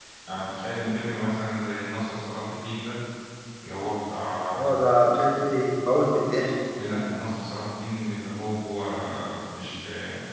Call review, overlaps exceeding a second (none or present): none